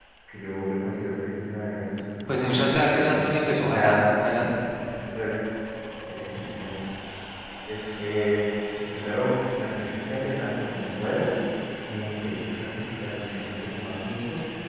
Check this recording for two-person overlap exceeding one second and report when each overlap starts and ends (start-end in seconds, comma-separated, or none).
2.3-4.5